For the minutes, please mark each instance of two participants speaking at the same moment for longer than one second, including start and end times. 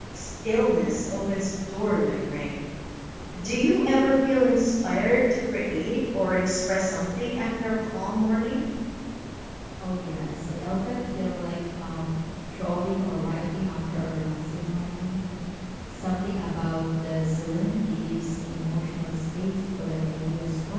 none

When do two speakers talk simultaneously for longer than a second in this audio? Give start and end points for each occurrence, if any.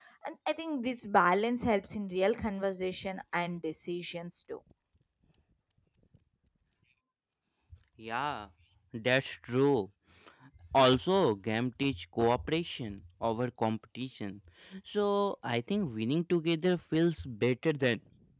none

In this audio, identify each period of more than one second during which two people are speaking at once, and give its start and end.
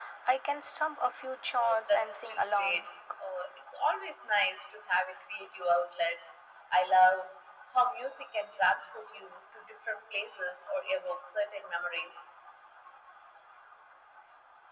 1.6-2.9

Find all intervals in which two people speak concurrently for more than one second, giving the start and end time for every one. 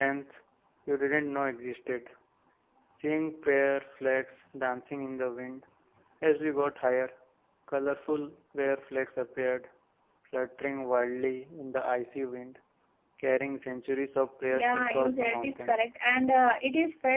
14.5-15.8

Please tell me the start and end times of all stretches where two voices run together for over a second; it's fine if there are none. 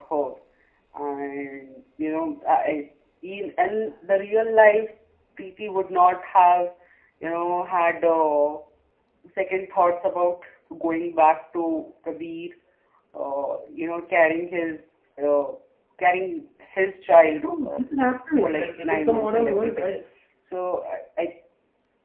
18.4-19.9

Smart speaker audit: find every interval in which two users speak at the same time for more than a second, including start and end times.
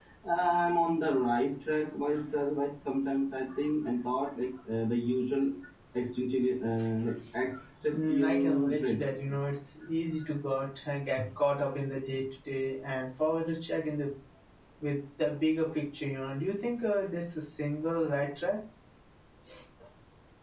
7.9-9.3

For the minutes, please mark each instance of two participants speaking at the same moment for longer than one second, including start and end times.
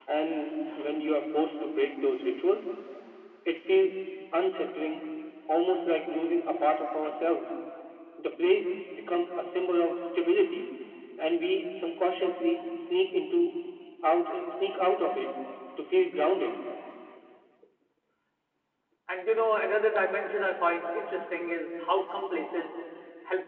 none

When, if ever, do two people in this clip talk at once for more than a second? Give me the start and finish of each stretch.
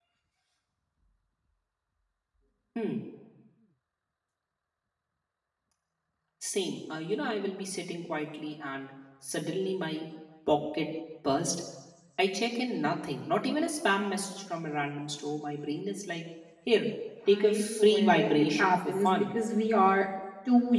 17.3-19.2

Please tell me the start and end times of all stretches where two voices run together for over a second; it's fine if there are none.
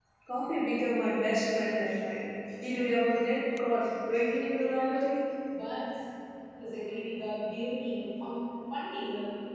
none

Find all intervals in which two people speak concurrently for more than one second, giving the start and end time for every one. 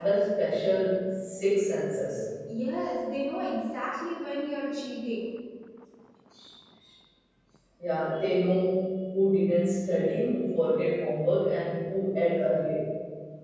none

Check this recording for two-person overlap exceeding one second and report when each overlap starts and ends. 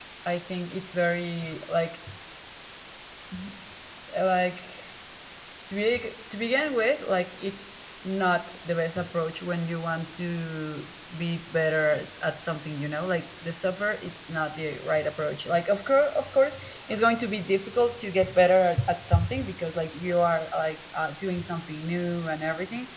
none

